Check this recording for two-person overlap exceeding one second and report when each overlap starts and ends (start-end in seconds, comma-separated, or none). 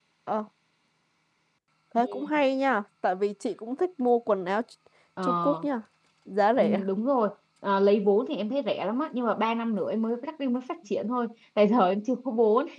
none